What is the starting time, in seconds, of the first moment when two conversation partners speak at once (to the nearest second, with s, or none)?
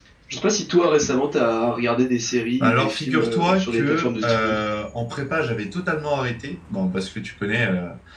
3 s